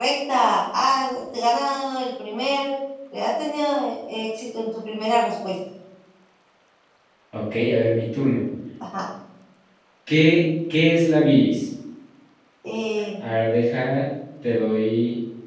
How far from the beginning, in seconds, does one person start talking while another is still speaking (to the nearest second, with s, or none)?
none